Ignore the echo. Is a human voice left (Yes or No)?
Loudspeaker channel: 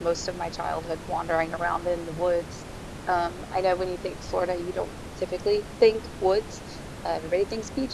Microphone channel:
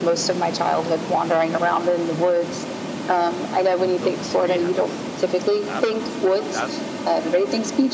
Yes